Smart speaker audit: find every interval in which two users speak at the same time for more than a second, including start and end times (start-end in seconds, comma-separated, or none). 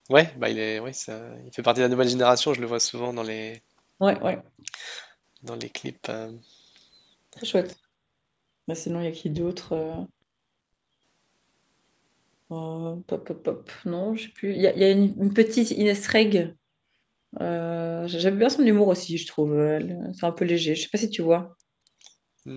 none